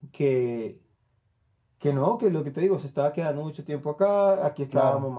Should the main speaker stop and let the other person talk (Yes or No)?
No